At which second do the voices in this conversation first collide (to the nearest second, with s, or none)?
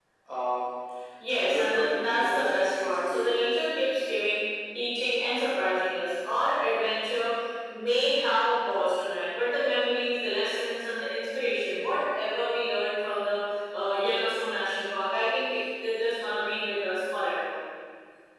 1 s